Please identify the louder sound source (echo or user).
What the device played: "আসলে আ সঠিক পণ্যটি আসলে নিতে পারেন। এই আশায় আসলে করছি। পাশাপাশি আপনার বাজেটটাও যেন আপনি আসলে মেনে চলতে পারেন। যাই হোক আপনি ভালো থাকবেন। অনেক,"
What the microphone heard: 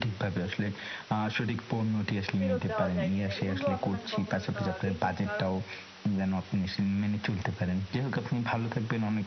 echo